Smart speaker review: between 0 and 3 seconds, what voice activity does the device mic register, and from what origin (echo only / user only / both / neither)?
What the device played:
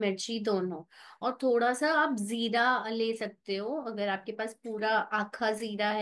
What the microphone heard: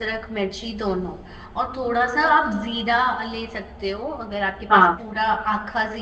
echo only